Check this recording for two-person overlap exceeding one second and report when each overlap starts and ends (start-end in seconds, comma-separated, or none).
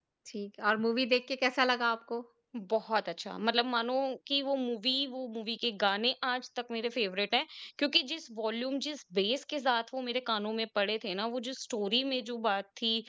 none